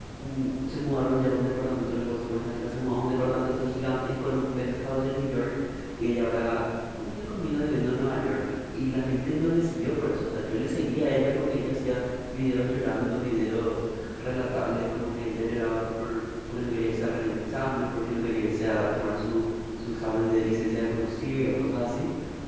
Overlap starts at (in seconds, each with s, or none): none